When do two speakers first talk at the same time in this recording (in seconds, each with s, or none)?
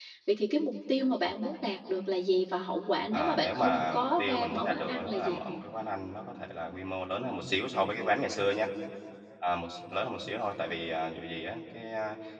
3.1 s